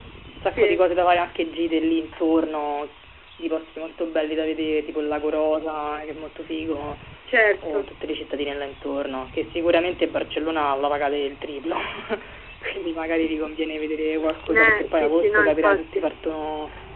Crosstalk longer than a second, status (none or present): present